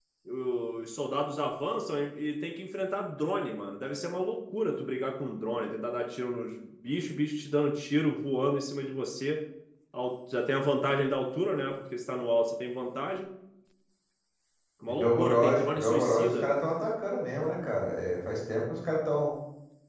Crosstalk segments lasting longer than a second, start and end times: 14.9-16.6

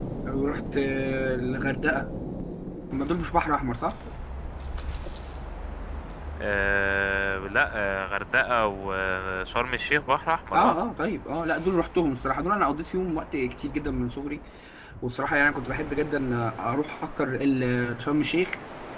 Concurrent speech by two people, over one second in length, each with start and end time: none

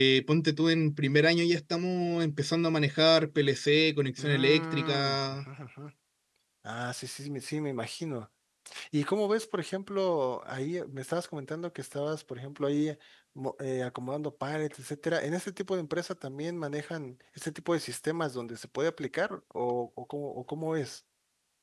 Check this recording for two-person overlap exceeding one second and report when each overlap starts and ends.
4.2-5.4

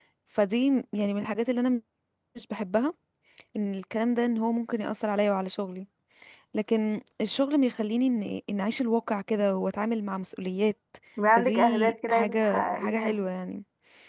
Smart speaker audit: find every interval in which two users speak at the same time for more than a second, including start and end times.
11.4-13.2

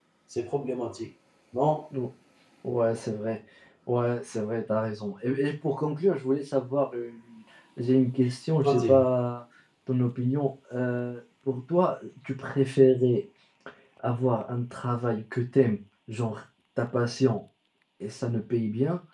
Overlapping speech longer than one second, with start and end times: none

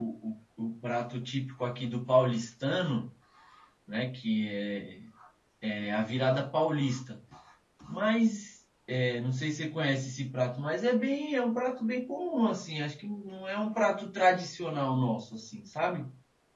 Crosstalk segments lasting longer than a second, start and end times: none

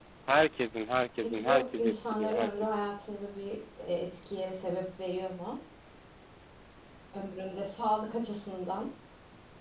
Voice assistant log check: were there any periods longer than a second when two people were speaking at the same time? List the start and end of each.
1.2-2.9

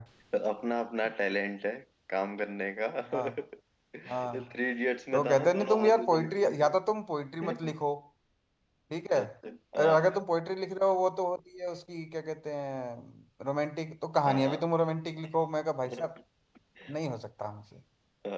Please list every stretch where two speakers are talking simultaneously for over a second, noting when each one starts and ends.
5.1-6.5

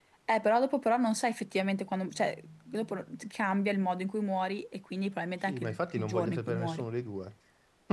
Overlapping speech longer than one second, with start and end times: 5.5-6.8

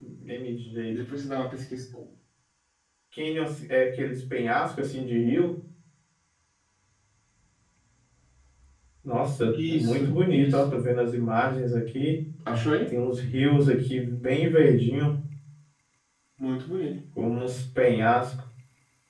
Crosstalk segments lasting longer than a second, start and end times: 9.5-10.8

